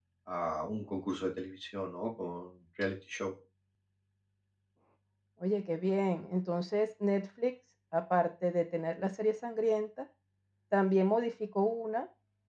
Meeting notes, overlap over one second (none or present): none